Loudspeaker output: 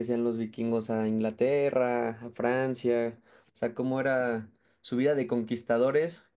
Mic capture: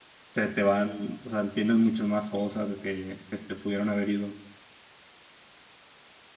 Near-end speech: present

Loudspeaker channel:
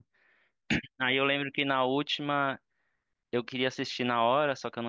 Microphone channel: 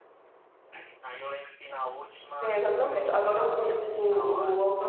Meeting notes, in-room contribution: present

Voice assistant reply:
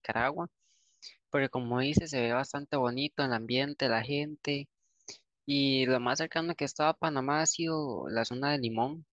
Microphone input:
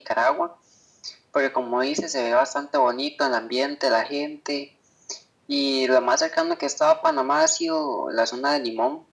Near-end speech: none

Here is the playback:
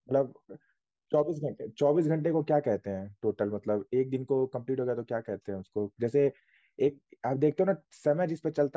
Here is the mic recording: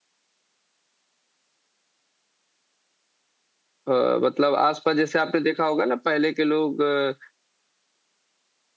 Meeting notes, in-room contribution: present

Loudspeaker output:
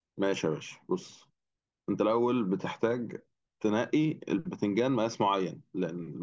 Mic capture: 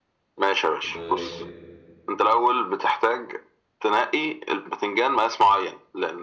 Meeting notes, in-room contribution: present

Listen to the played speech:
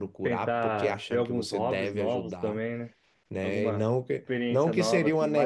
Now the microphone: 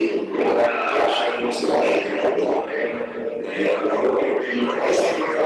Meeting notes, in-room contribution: none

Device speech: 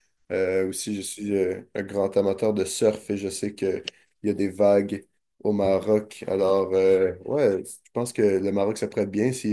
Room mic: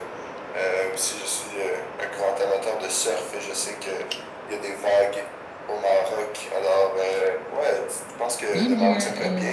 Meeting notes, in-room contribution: present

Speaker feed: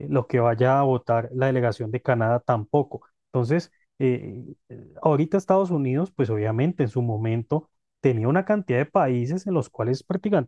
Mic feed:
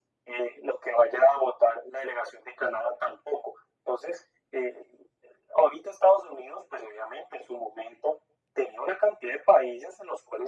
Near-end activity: none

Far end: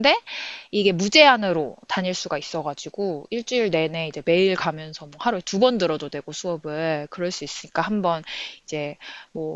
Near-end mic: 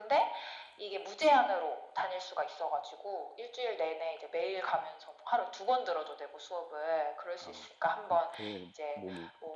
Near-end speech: present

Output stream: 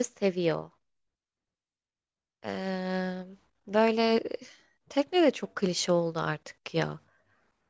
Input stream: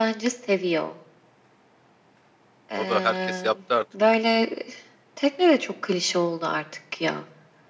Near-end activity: present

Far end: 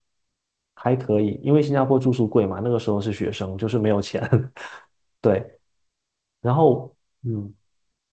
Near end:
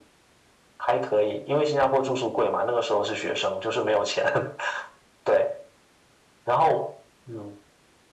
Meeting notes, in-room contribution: none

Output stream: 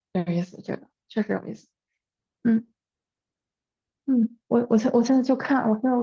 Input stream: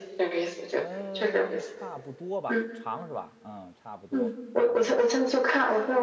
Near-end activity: present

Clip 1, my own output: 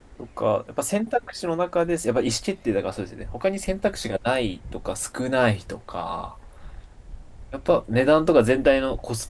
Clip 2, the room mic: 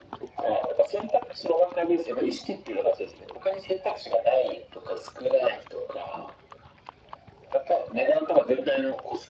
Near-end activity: none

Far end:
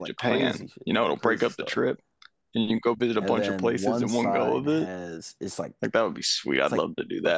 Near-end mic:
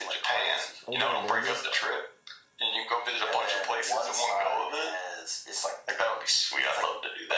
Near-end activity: present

